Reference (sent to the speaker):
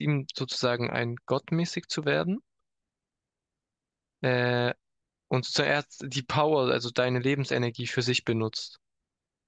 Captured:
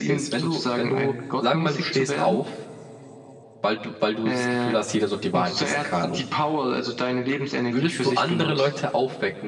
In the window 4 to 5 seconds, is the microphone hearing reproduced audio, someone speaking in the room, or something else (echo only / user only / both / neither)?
both